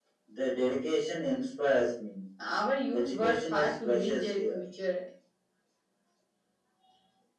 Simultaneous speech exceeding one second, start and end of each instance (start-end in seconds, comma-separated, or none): 2.9-4.6